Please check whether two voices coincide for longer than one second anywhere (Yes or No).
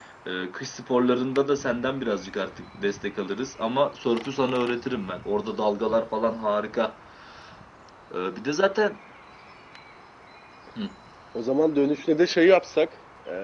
No